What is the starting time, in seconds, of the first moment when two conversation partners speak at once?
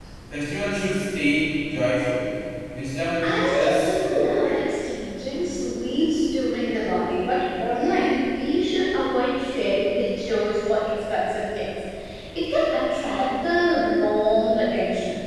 3 s

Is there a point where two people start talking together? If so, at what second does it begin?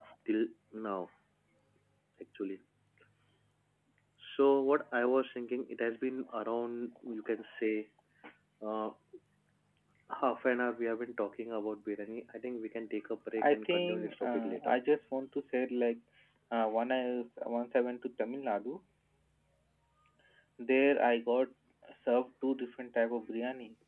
13 s

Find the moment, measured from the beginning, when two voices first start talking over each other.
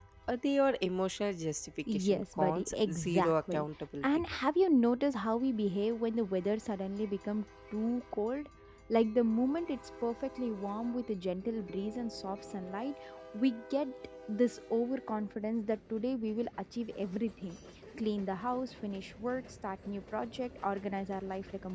2 s

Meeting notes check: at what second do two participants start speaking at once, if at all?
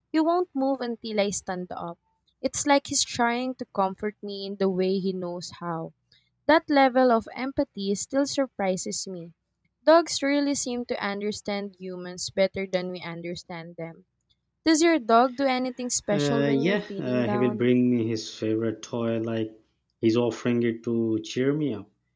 16 s

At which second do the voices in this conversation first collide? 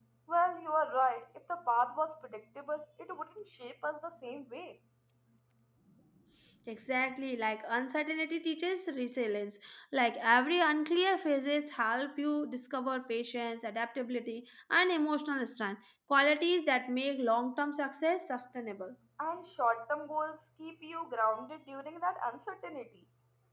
none

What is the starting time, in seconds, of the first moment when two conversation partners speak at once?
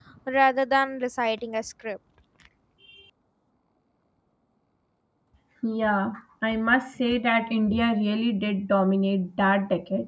none

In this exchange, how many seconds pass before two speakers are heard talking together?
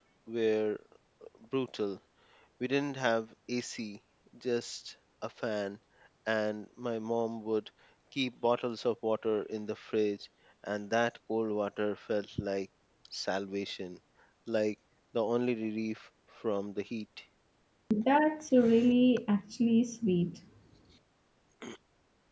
none

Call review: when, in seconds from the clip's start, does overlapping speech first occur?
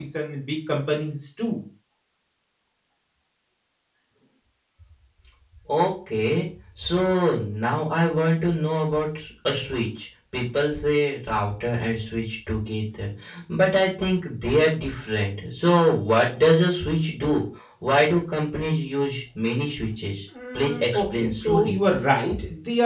20 s

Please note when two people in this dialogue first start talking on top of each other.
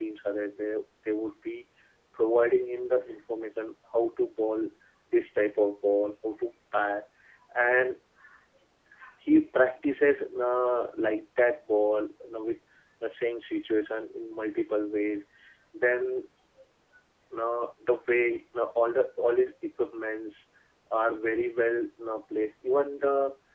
none

